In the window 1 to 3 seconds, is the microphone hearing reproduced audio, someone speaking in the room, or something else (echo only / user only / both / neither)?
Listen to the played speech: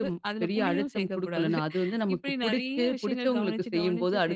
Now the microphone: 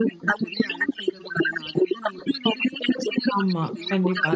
echo only